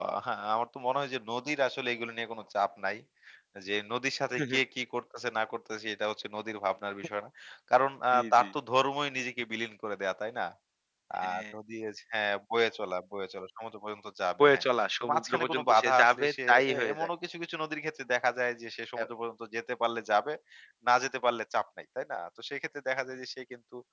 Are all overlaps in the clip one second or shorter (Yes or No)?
No